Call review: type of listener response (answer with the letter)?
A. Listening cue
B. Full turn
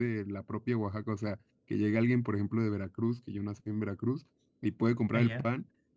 A